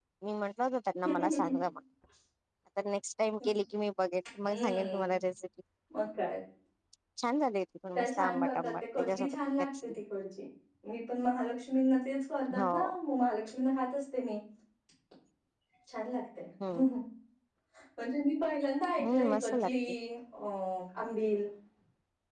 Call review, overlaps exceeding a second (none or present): present